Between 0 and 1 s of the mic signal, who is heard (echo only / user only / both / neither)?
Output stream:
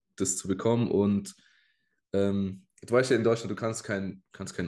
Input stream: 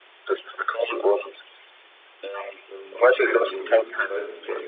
echo only